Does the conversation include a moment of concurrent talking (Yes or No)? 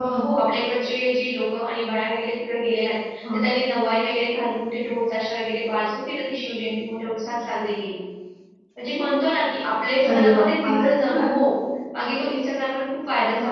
Yes